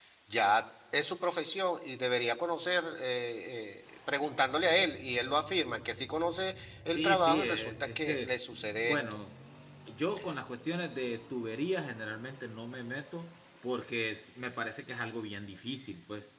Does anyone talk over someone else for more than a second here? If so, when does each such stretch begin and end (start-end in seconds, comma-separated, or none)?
7.0-8.3